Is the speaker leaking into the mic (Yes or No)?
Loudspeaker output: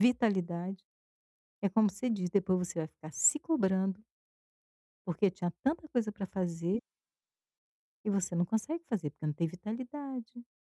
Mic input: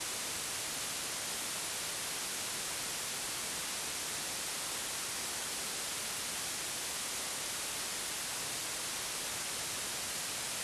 No